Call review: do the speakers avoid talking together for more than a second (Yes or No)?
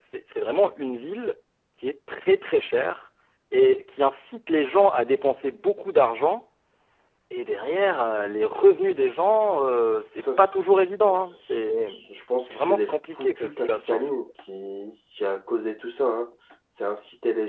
No